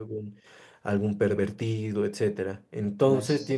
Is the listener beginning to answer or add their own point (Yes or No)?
No